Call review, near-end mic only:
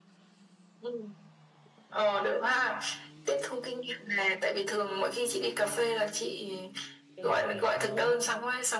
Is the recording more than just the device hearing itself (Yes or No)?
Yes